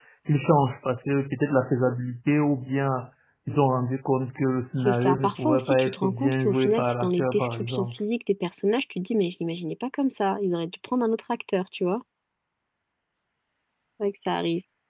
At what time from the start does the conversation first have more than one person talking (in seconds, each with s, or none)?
4.8 s